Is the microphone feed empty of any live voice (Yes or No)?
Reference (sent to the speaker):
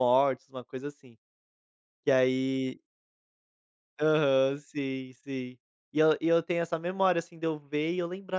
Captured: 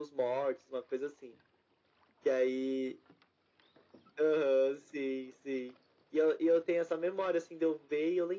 Yes